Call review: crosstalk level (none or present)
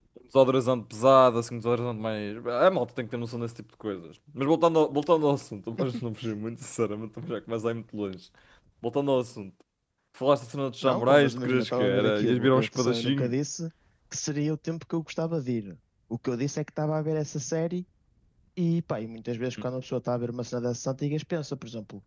present